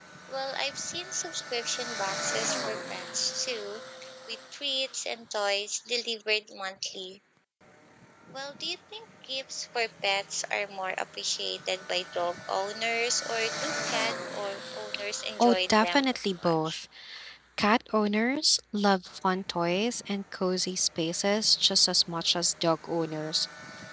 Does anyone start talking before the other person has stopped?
Yes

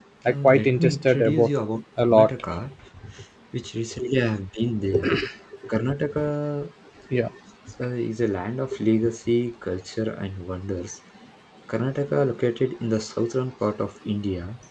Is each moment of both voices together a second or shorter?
No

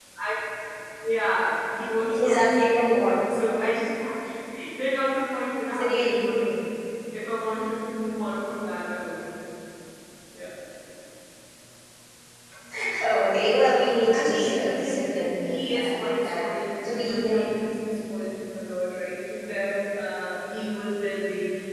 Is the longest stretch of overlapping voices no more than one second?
No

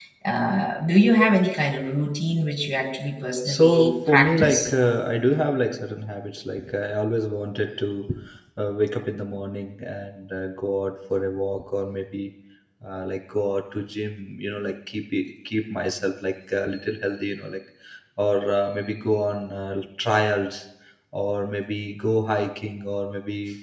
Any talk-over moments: Yes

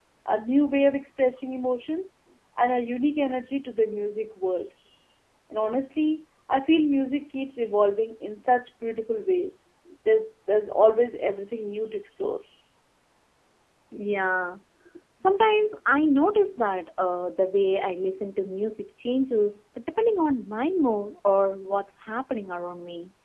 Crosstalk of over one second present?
No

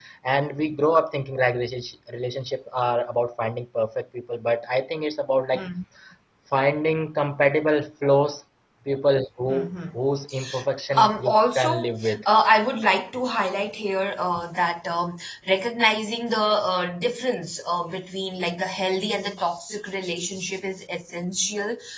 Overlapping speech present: Yes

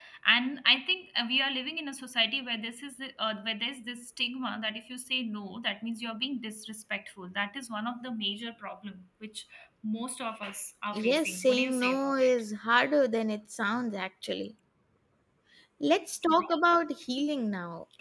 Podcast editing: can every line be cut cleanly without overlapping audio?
No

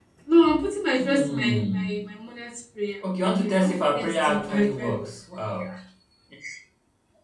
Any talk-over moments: Yes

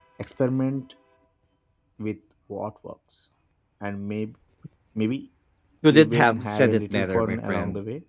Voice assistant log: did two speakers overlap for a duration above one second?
Yes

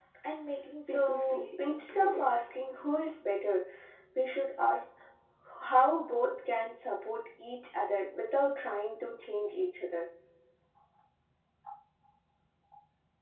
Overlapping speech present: Yes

